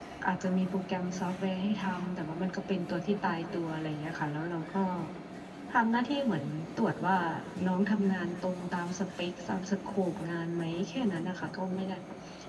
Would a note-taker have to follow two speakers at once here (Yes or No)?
No